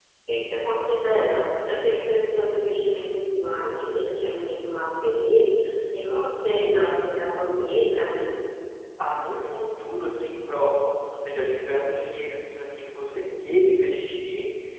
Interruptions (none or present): none